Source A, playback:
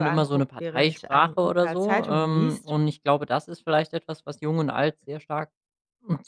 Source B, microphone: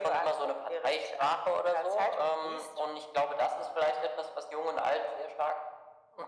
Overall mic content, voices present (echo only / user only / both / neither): echo only